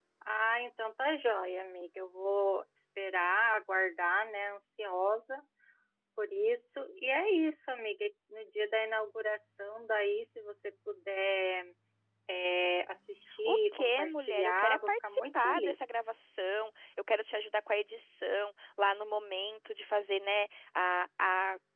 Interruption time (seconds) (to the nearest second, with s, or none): 13 s